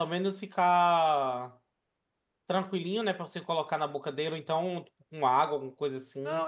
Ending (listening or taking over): taking over